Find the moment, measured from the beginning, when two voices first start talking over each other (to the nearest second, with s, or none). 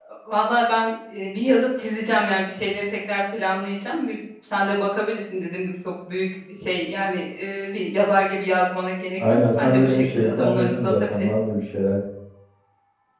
9 s